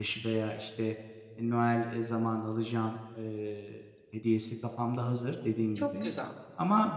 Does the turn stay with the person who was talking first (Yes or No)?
Yes